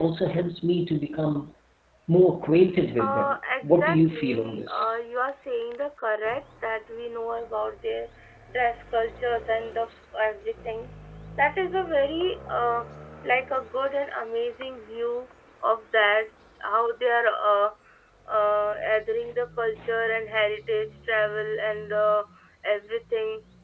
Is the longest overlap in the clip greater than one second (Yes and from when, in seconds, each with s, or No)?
Yes, from 3.0 s